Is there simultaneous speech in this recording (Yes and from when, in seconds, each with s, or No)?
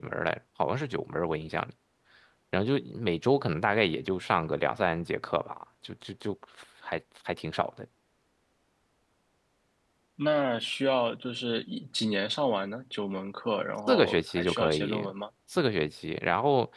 Yes, from 13.9 s